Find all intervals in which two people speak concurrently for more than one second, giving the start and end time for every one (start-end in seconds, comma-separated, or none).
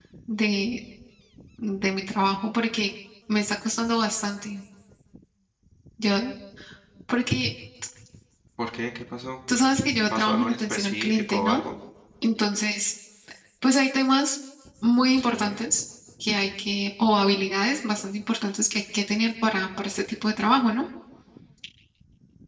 10.1-11.6